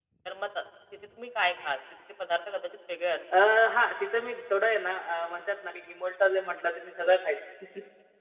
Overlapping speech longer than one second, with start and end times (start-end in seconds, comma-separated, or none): none